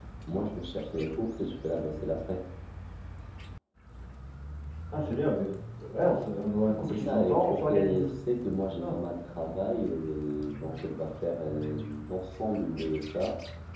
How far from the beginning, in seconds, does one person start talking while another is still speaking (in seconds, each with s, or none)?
6.8 s